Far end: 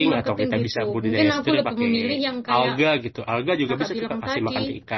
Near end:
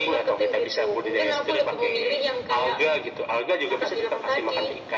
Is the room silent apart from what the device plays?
Yes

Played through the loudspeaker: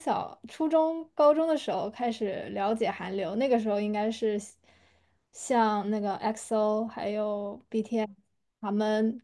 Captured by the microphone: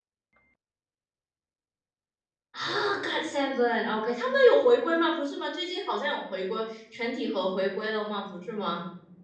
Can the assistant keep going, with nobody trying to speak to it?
No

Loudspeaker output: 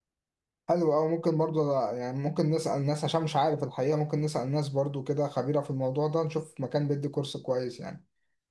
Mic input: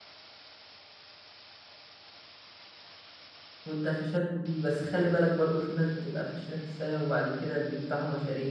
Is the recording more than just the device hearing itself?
Yes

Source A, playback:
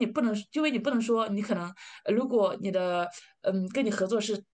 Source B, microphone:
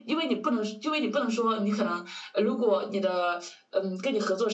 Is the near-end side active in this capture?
No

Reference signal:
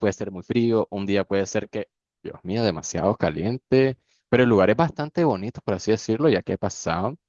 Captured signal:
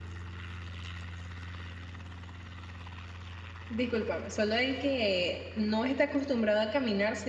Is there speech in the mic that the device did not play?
Yes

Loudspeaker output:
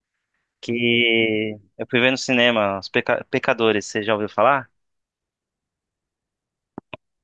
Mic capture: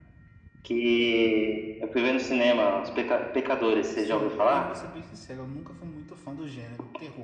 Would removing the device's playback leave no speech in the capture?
No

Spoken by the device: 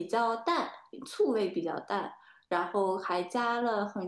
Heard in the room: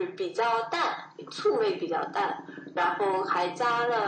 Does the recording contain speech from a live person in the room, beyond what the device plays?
No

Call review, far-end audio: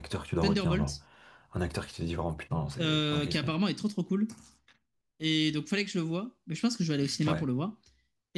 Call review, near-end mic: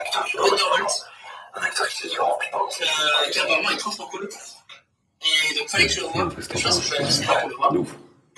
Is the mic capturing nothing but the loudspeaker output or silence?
No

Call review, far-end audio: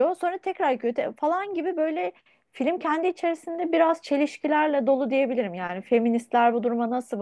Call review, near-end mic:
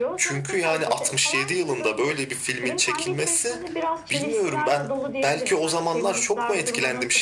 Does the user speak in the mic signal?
Yes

